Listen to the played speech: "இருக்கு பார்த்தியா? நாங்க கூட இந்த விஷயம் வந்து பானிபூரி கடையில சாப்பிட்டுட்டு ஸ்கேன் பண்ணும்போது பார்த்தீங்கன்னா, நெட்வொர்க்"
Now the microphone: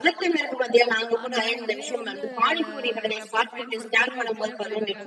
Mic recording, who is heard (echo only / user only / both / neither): both